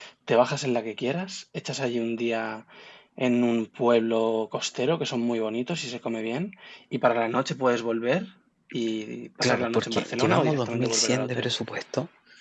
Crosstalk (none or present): present